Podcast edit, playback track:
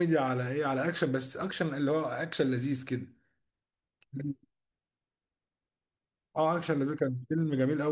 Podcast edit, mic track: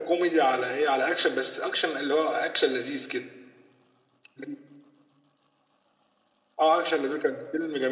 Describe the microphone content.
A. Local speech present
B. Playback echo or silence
B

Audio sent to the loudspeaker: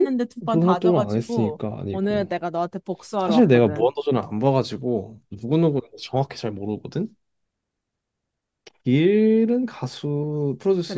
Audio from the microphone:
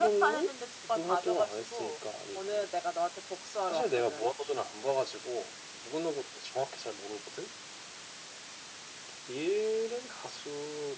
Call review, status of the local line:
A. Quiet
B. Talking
A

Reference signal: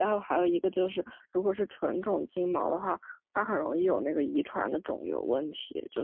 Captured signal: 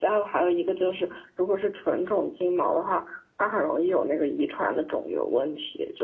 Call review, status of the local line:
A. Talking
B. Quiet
B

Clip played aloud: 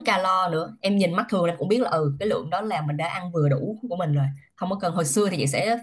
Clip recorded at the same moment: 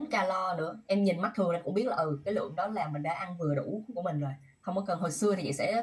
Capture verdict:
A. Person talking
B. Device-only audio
B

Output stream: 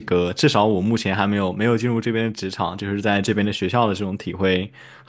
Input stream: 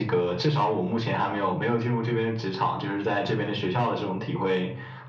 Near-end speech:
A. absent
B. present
A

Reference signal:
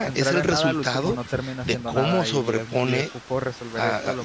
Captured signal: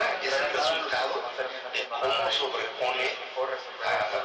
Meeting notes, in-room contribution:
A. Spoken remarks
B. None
B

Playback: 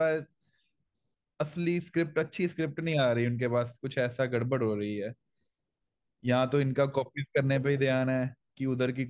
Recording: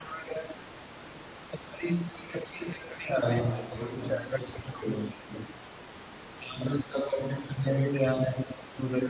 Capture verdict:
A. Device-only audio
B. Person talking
B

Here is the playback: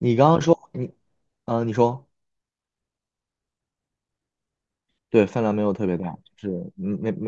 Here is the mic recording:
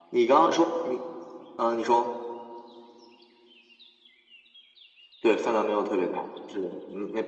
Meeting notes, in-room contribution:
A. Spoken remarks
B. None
B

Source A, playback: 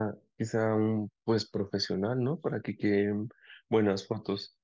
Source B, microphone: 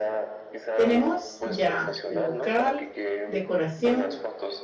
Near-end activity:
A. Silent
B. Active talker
B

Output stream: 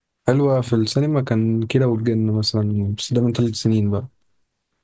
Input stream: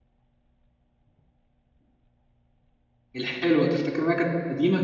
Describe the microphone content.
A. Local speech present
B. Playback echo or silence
A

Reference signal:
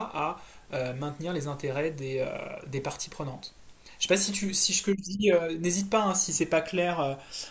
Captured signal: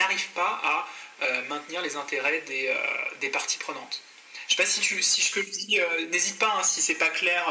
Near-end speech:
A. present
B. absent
B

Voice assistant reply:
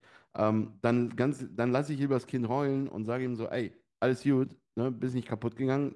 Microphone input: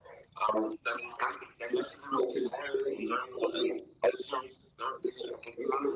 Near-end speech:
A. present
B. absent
B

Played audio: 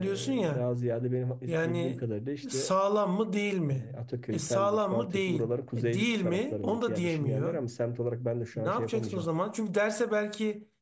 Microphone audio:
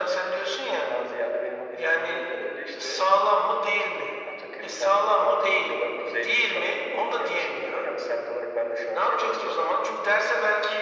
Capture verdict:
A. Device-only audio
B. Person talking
A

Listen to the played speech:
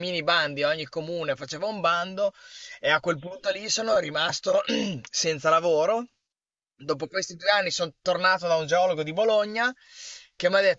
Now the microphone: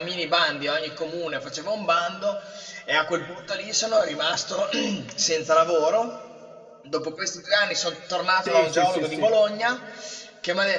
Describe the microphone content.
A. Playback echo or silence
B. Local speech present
B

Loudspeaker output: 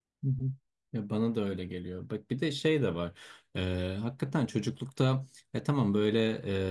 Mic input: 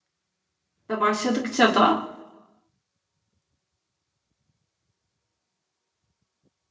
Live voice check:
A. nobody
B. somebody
B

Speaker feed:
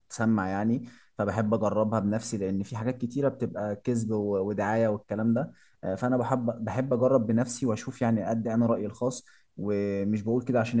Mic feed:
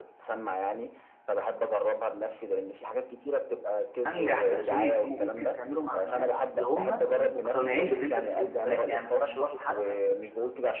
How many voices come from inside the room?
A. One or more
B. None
A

